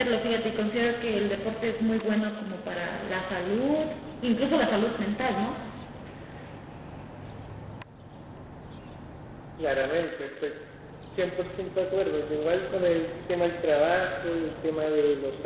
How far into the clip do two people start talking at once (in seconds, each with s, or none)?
none